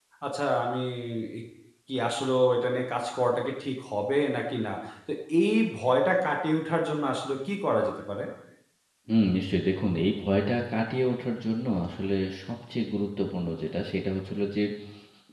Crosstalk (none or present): none